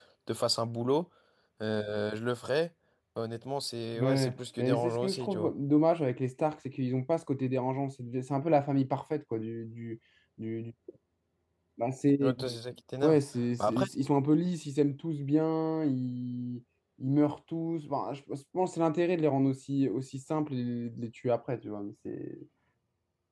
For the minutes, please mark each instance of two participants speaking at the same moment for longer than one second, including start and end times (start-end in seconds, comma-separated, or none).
4.0-5.5